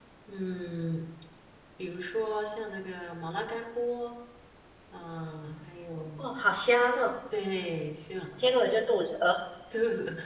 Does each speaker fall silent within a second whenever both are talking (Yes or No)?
Yes